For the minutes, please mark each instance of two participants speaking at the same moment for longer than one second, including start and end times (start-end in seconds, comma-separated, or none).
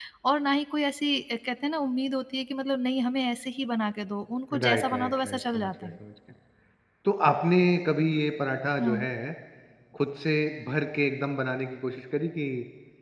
4.5-5.9